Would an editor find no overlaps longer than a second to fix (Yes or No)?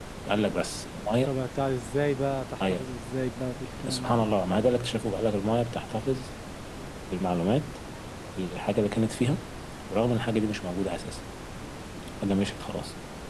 Yes